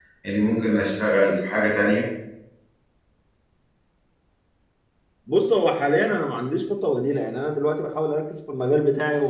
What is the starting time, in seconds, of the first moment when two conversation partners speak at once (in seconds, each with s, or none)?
none